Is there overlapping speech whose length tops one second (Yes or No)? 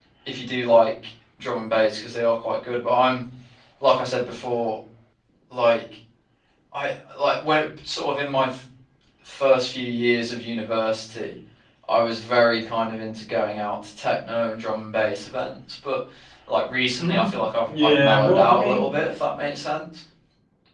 Yes